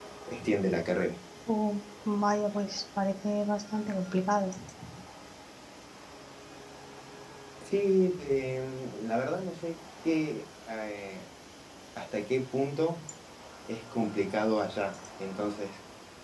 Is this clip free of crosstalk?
Yes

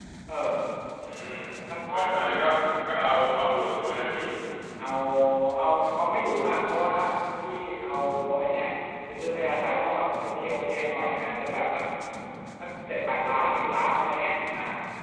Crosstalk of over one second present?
No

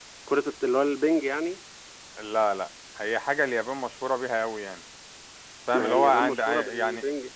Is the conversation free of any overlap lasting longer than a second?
No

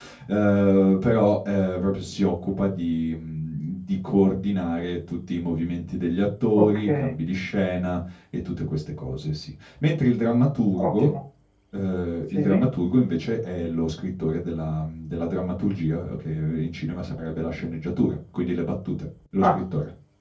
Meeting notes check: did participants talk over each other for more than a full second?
No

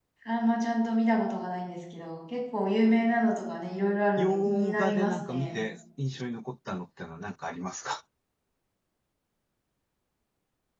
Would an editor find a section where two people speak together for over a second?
Yes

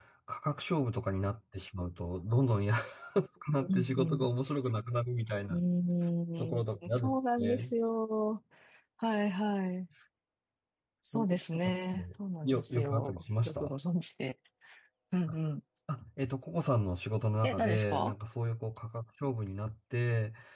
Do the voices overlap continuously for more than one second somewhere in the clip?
Yes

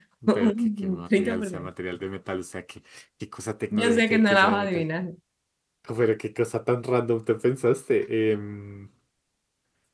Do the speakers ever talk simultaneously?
Yes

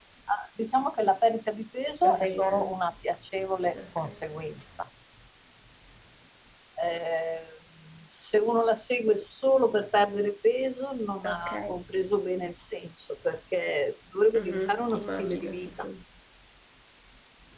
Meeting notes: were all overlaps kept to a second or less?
No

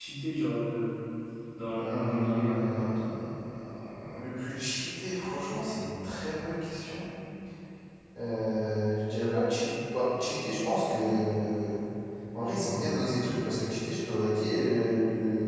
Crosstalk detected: Yes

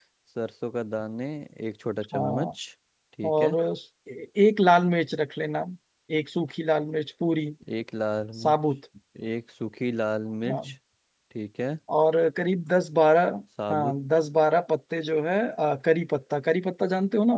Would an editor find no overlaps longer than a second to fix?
Yes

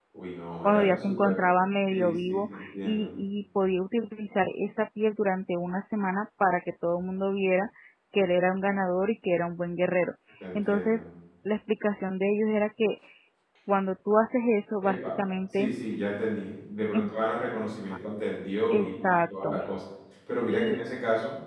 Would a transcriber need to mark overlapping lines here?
Yes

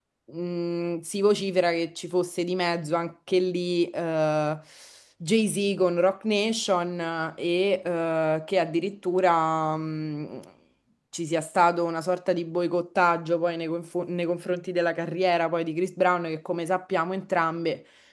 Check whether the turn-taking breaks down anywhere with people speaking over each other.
No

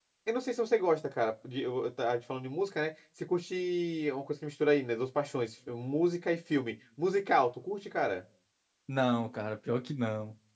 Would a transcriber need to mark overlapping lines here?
No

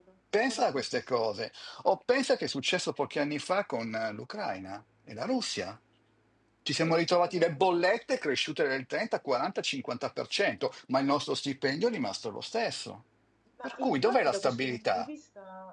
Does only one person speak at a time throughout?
No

